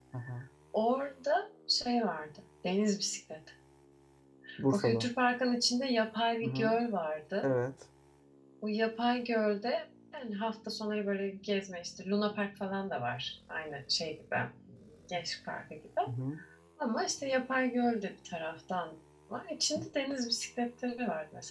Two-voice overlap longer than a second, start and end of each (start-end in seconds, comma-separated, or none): none